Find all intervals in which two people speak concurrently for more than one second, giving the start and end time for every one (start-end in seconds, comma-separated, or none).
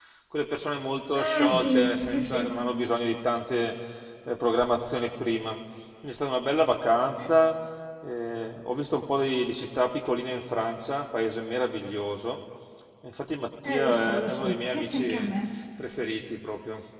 1.1-2.5, 13.6-15.3